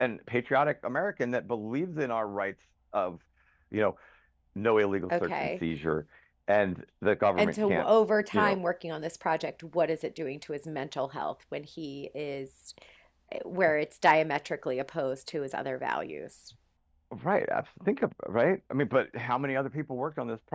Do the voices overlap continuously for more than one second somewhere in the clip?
No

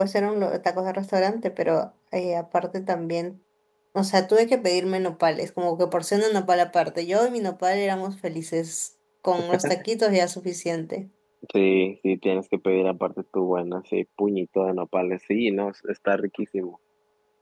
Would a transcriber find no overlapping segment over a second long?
Yes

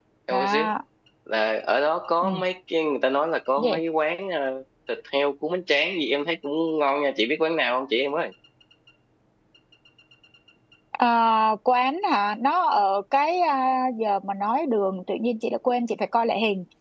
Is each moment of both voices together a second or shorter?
Yes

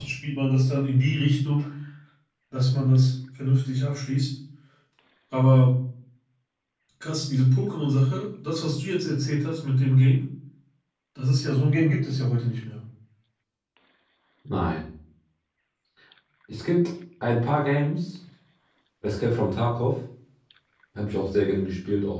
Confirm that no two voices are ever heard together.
Yes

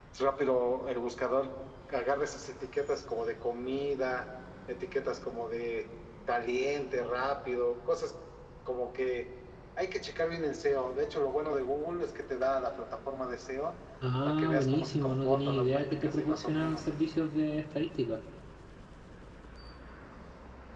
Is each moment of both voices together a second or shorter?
No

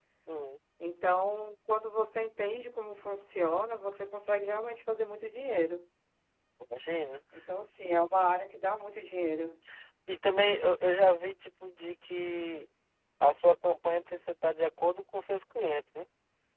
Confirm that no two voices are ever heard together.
Yes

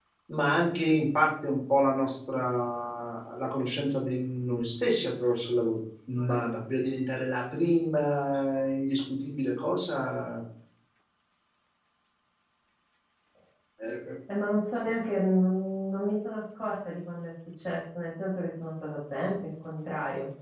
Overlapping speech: No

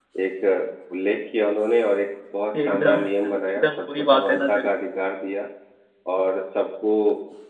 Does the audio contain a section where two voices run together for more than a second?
Yes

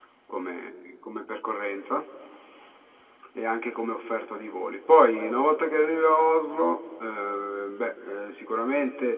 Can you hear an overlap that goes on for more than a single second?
No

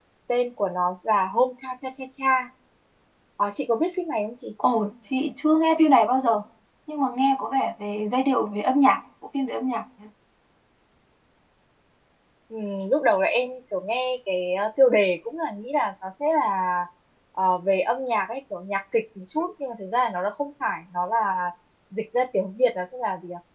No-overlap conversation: Yes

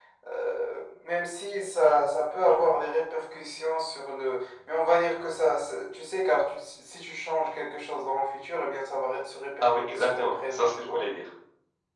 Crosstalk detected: Yes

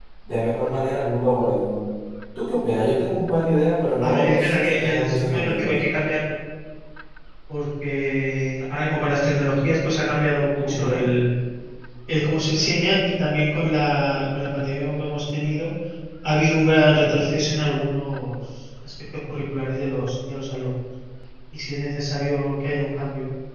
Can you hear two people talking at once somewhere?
Yes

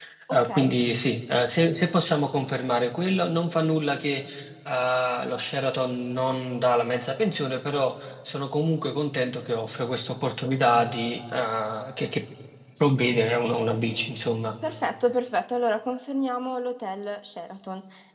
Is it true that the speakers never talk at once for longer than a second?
Yes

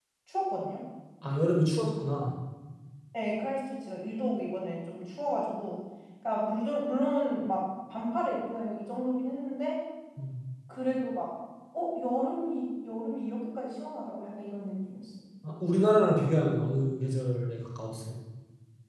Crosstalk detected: No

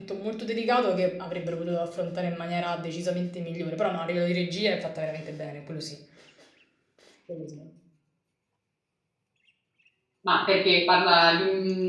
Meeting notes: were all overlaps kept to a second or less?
Yes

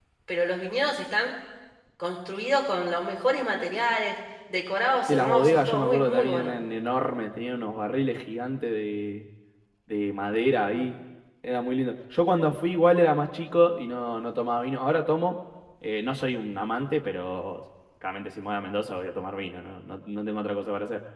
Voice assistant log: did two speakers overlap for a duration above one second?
Yes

